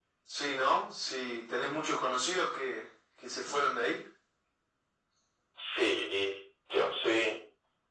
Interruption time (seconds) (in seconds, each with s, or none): none